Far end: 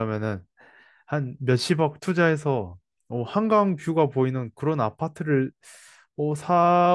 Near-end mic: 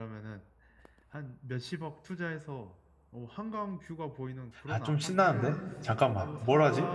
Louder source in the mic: user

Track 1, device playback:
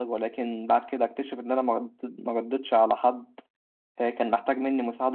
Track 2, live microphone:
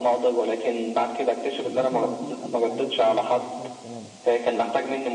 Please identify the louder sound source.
echo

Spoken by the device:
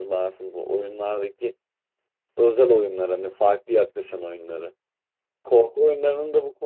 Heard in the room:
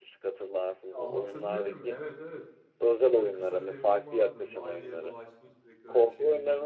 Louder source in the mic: echo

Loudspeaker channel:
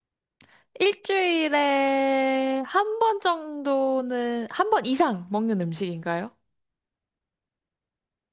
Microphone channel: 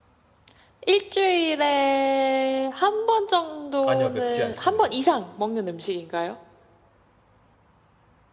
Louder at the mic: echo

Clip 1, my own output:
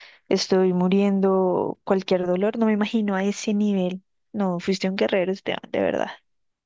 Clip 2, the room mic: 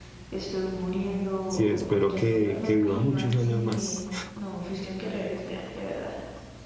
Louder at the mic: user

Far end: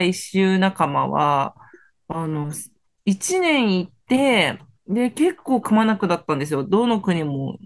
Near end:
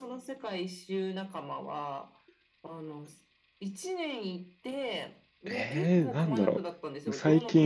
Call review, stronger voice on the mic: user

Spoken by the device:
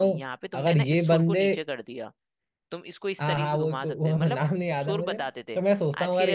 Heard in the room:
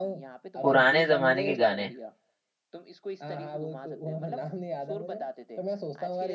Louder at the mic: user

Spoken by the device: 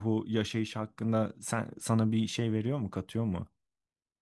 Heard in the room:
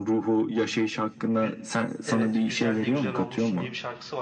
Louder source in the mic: echo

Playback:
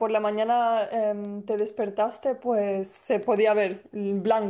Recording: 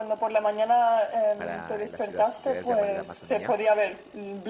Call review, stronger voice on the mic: echo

